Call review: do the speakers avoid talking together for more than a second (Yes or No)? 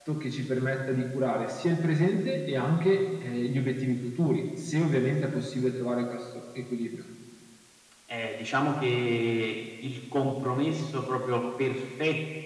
Yes